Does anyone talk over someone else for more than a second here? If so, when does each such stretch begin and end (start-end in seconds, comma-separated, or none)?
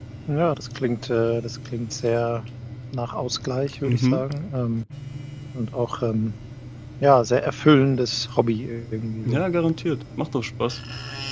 none